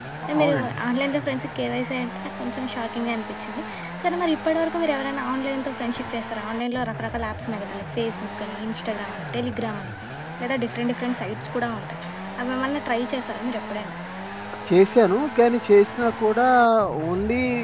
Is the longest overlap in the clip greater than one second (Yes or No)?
No